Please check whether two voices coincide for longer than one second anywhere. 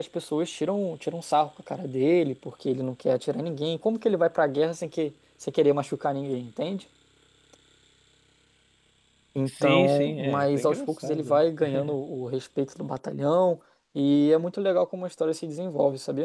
Yes, from 9.5 s

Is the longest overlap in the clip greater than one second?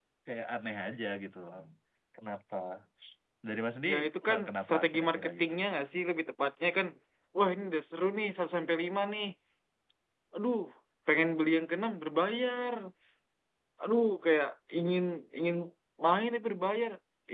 Yes, from 3.9 s

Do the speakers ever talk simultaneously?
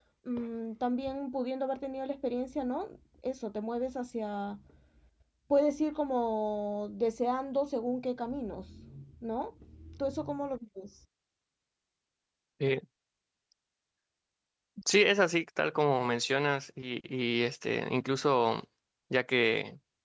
No

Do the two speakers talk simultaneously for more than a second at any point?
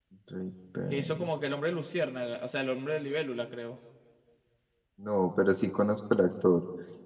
No

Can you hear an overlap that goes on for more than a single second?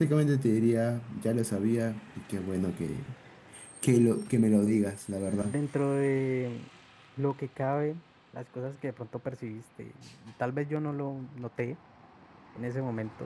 No

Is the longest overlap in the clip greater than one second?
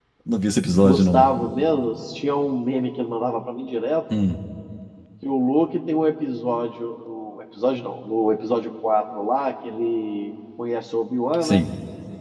No

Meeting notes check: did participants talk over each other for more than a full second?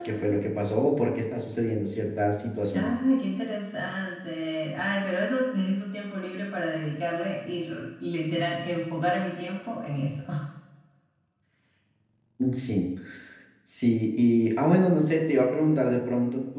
No

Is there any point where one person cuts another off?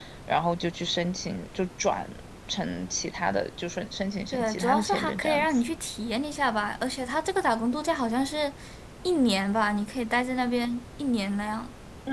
Yes, from 4.3 s

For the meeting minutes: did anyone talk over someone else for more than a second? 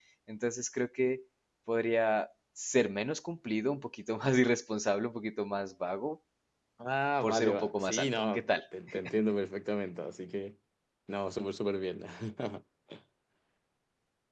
Yes, from 7.2 s

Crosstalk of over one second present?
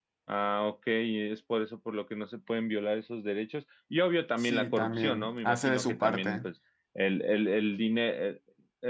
Yes, from 4.4 s

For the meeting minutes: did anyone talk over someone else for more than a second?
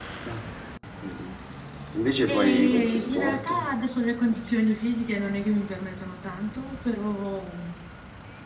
Yes, from 2.3 s

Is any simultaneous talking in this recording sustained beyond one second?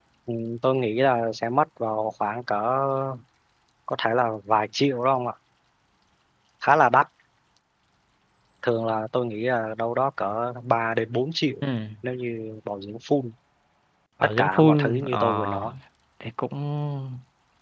Yes, from 14.4 s

